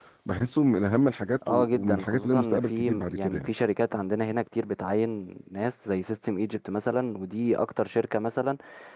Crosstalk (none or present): present